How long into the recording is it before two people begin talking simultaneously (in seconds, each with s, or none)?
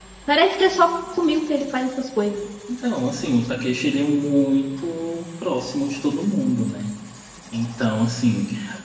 none